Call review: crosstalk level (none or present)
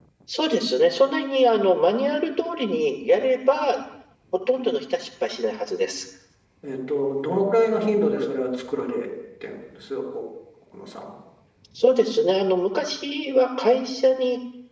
none